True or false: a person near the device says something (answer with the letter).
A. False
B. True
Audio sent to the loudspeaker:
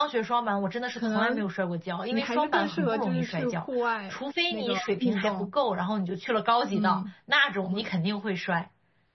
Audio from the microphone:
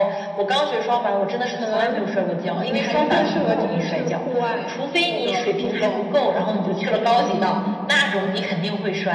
A